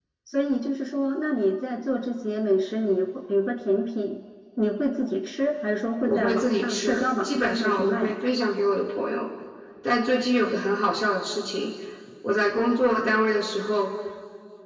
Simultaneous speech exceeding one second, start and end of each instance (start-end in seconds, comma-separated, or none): 6.0-8.2